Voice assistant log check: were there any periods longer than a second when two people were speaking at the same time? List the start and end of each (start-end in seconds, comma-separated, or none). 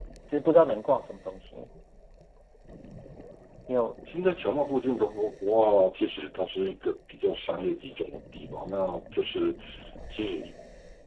none